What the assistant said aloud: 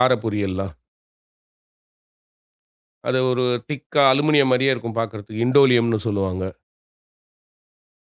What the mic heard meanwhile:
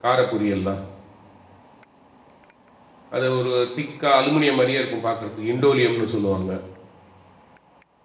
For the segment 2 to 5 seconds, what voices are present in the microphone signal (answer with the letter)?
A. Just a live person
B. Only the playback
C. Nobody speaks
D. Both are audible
B